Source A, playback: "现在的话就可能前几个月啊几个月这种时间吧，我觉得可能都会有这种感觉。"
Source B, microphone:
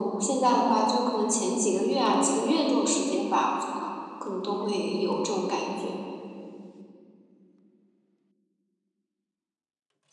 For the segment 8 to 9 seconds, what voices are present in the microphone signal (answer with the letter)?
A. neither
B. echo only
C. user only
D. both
A